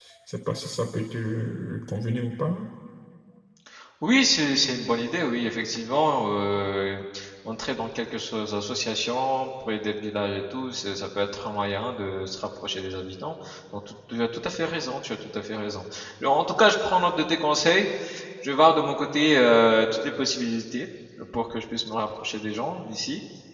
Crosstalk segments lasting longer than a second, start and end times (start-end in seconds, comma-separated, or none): none